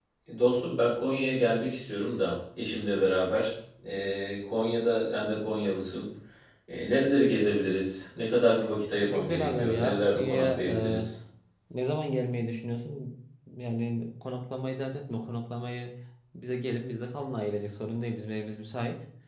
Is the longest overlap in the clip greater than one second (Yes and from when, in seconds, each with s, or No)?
Yes, from 9.0 s